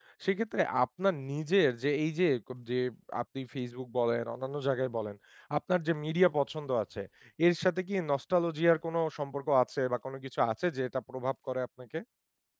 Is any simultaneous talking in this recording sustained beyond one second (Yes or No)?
No